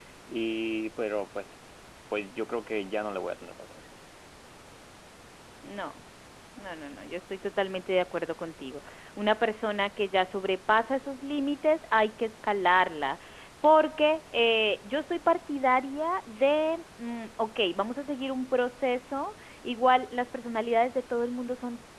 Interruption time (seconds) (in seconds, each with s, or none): none